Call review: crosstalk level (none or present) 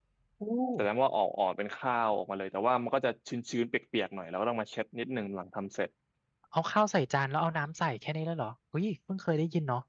none